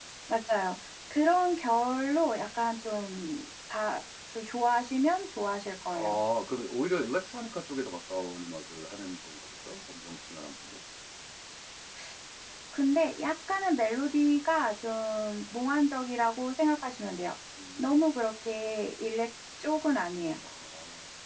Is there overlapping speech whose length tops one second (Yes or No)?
No